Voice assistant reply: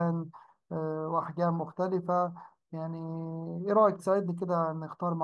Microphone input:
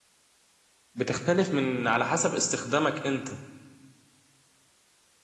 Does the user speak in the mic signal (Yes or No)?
Yes